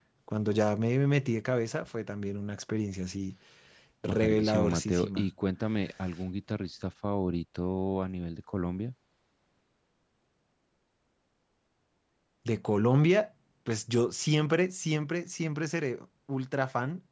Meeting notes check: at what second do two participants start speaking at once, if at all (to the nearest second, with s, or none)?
4 s